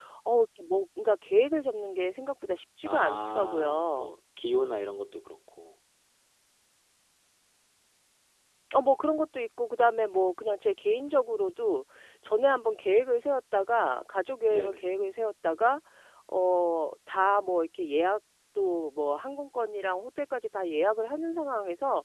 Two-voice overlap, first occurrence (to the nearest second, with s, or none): 3 s